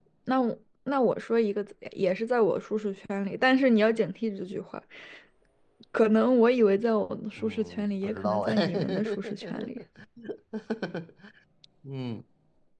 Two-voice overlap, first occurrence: 7.4 s

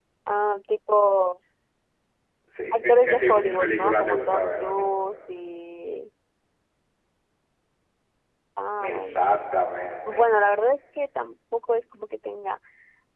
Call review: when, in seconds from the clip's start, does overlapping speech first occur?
2.7 s

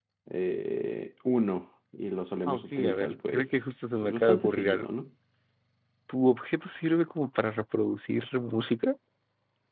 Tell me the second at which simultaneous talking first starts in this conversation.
2.5 s

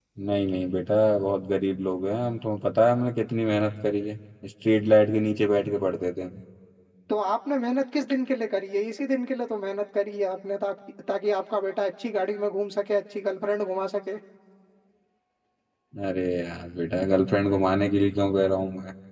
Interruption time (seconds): none

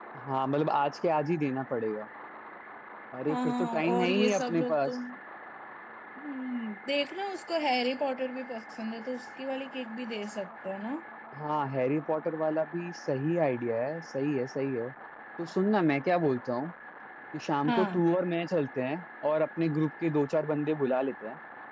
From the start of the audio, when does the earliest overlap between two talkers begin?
3.3 s

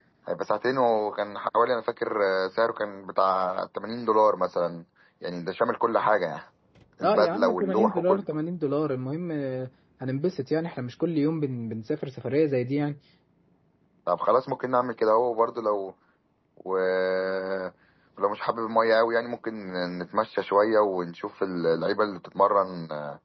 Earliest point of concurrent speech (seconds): 7.0 s

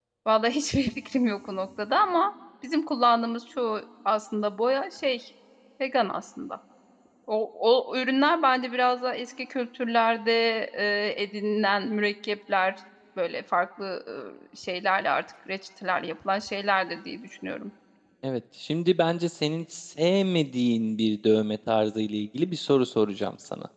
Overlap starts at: none

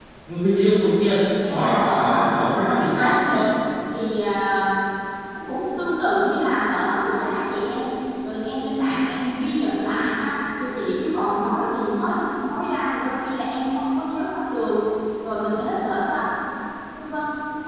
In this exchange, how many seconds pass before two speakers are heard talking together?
1.5 s

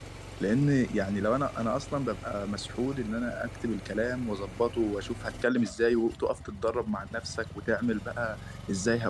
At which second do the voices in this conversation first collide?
none

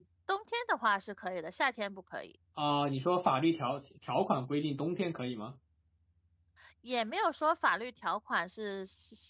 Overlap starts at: none

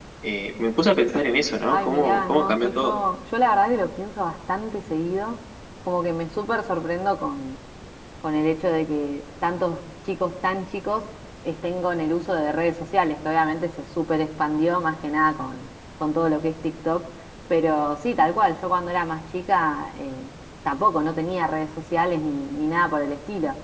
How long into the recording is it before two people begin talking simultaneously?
1.7 s

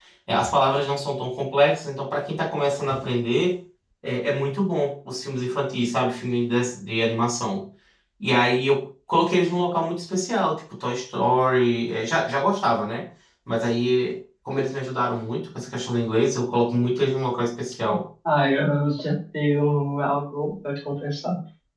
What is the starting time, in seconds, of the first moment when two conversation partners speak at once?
none

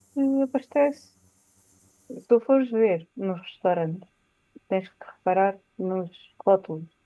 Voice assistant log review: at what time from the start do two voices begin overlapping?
none

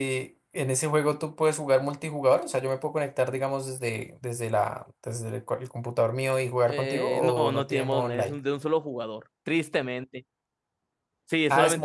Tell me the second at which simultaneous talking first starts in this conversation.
6.7 s

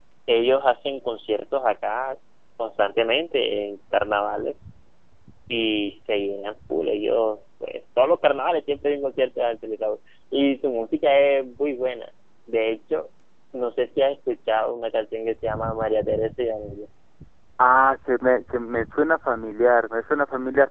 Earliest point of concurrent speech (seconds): none

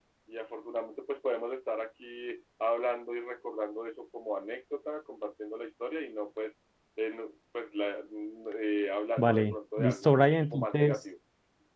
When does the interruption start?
9.2 s

